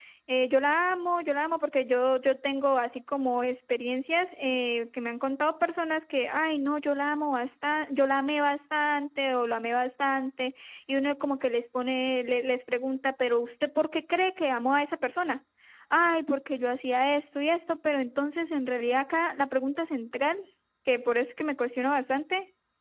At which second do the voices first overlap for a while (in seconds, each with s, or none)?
none